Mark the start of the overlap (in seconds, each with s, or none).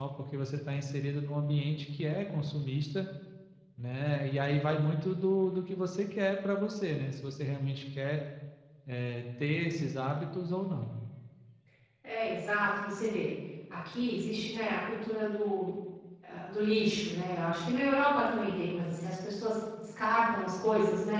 none